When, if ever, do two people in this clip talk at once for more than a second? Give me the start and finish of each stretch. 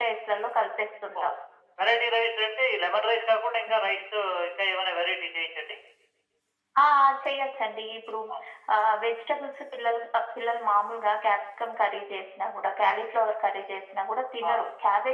none

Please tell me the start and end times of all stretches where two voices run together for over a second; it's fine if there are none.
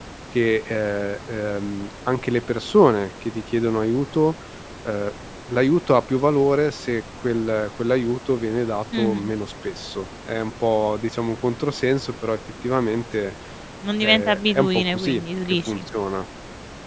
14.0-15.8

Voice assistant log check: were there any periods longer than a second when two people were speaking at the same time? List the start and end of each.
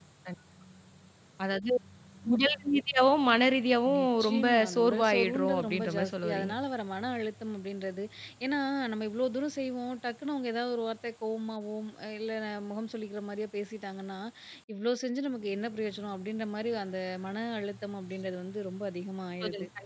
4.0-6.5

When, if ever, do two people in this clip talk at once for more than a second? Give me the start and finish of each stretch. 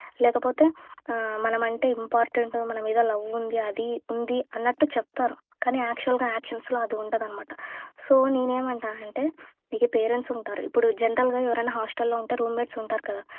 none

